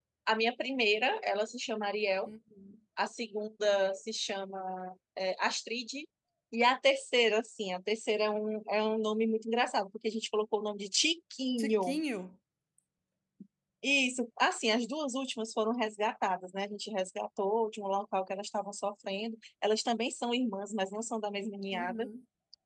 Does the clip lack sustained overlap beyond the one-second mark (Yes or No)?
Yes